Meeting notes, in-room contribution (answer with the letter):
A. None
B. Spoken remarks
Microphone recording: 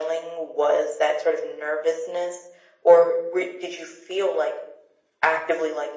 A